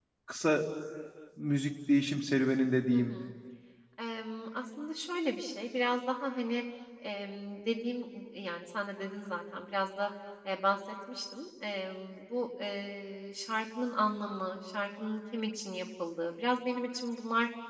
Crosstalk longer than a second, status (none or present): none